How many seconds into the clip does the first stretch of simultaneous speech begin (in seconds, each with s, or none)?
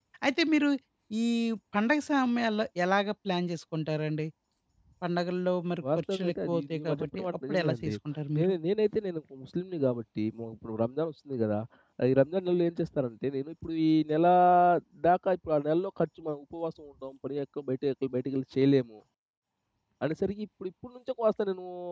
5.8 s